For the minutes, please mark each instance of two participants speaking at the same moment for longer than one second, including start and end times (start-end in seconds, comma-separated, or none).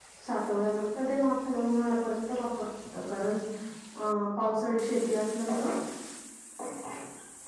none